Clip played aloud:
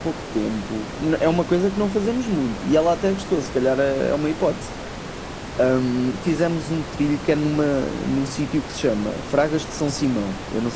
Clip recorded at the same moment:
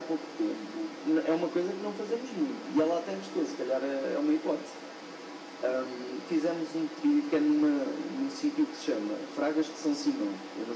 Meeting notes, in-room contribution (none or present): none